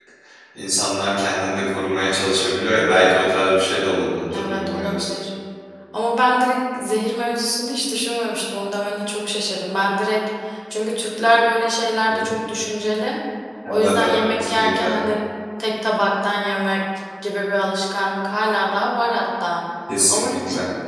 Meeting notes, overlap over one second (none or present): present